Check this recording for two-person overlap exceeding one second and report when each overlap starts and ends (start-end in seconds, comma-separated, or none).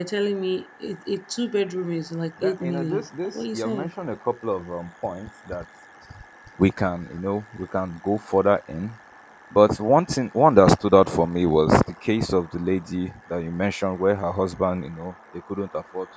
2.4-3.9